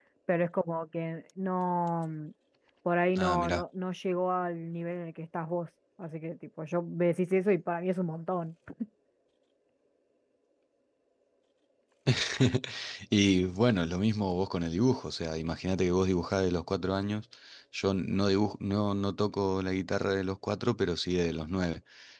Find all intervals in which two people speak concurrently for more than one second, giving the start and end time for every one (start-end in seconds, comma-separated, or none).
none